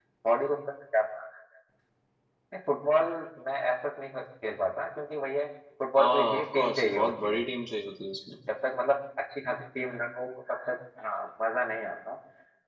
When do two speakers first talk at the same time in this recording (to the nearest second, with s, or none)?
6 s